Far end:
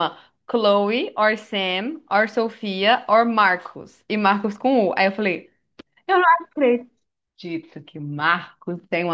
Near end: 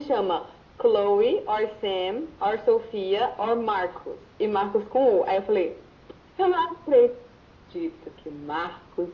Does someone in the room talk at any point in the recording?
No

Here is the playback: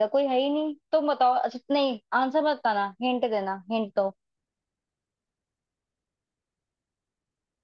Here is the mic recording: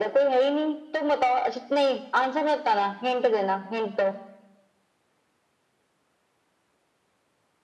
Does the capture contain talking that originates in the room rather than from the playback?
No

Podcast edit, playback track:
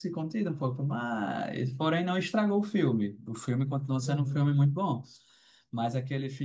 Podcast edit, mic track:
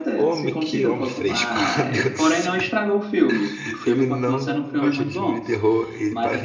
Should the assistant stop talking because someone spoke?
Yes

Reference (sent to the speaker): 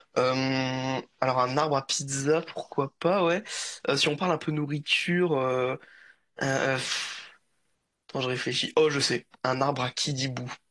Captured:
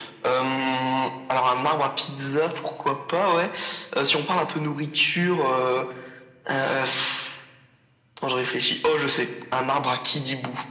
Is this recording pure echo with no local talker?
Yes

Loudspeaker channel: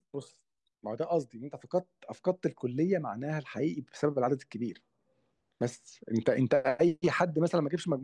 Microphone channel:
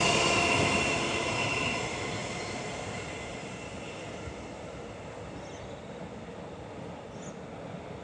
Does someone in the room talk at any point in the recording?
No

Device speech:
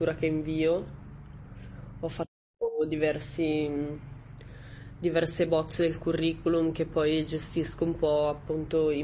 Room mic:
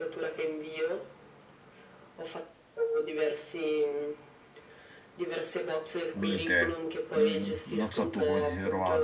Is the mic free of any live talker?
No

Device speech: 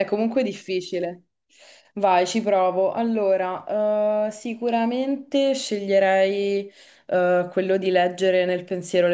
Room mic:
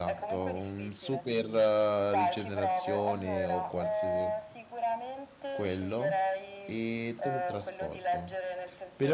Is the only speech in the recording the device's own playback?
No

